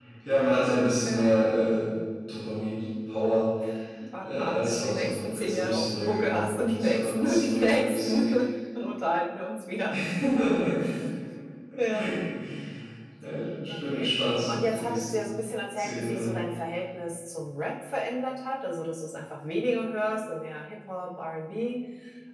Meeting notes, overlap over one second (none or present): present